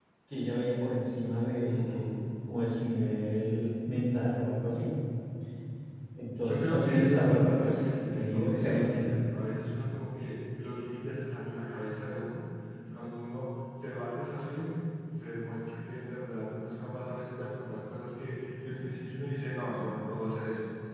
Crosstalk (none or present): present